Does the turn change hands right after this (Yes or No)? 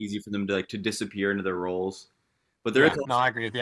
Yes